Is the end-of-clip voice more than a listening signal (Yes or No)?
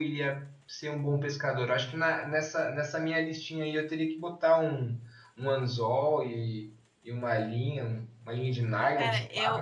Yes